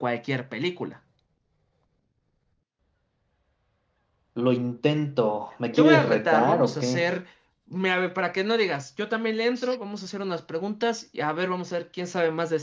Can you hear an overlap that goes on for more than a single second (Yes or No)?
Yes